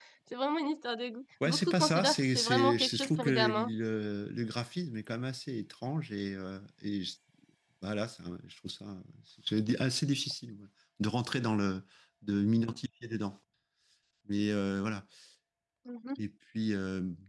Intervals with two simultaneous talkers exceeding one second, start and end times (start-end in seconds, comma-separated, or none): 1.4-3.7